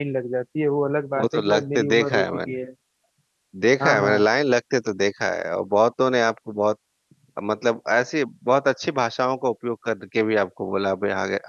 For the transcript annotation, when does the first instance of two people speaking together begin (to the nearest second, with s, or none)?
1 s